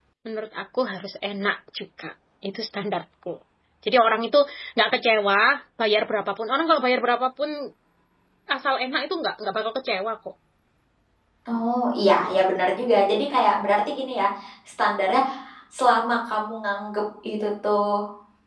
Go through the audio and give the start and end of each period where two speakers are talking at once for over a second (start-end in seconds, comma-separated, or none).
none